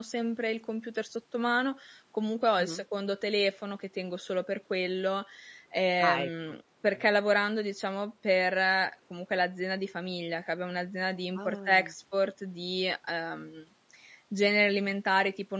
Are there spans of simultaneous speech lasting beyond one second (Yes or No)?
No